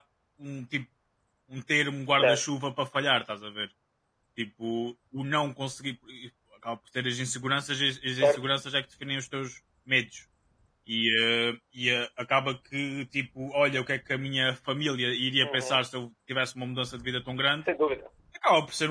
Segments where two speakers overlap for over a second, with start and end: none

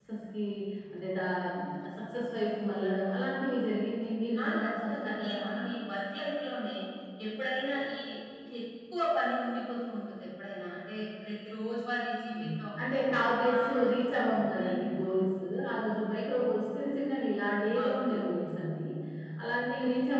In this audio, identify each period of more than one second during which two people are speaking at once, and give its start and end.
4.4-5.7

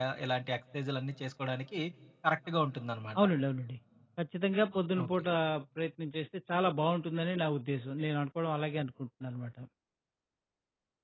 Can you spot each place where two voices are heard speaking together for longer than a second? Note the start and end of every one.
none

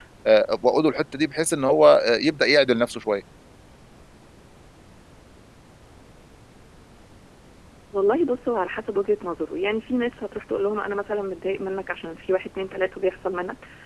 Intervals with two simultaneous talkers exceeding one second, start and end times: none

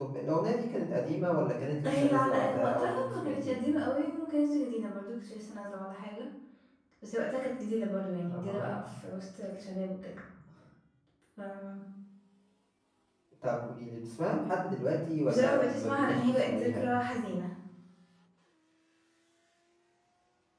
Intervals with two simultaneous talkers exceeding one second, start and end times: 1.9-3.6, 15.3-16.8

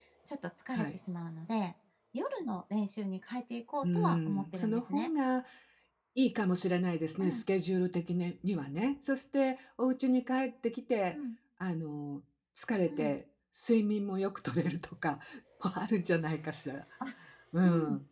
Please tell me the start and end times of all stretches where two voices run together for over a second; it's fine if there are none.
3.8-5.1

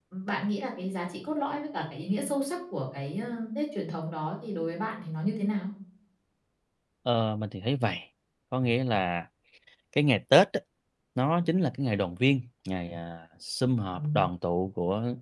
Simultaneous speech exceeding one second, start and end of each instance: none

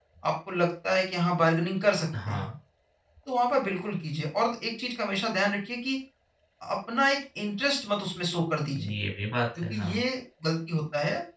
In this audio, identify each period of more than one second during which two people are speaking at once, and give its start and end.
none

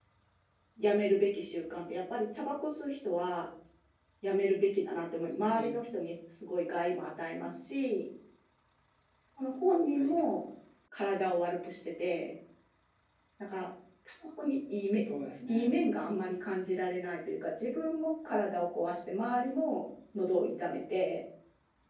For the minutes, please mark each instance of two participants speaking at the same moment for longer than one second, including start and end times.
none

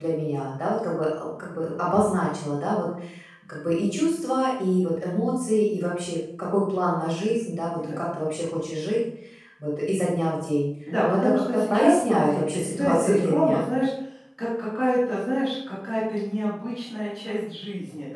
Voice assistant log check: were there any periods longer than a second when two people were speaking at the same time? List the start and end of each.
11.0-13.7

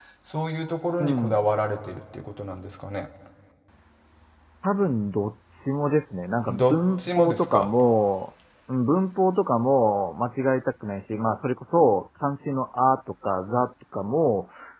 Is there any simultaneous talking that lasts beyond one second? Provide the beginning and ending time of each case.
6.5-7.7

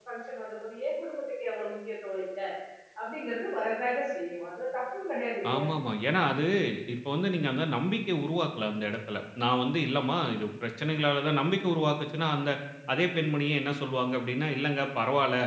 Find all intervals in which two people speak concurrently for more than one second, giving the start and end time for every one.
none

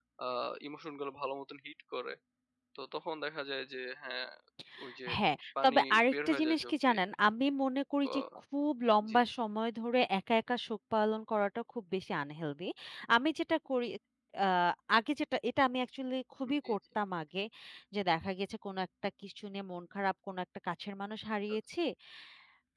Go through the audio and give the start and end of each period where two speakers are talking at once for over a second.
5.6-7.0

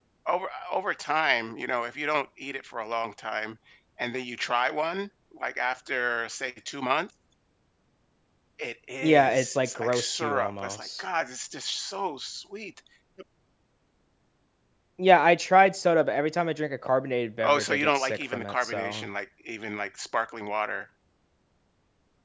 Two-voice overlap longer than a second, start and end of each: 9.0-11.0, 17.4-19.1

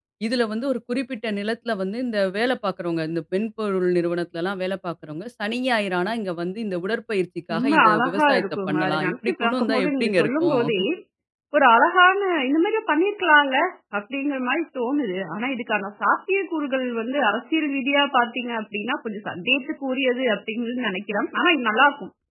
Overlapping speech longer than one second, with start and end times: 7.5-10.6

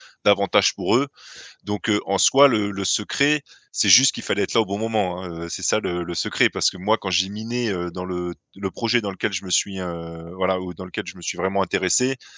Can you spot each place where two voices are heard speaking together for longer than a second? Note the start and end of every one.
none

